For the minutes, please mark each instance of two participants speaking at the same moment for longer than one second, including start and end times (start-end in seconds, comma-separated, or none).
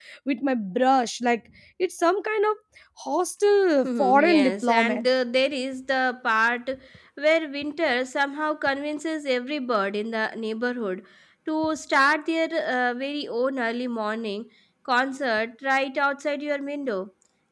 3.8-5.0